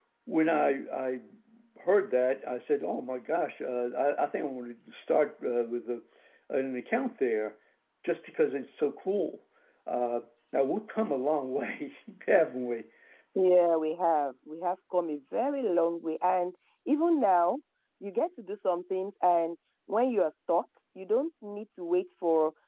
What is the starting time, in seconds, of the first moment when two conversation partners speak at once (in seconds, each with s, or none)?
none